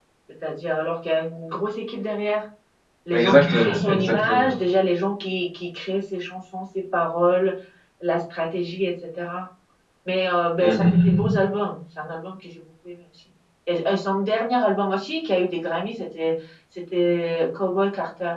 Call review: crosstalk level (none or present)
present